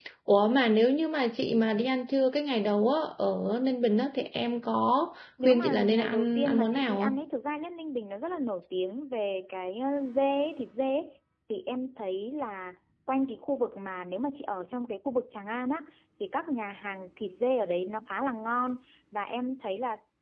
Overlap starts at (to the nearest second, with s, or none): 5 s